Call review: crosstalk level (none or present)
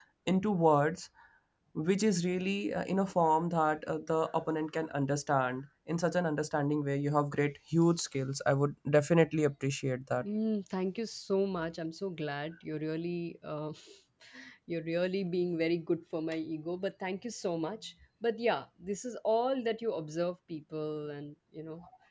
none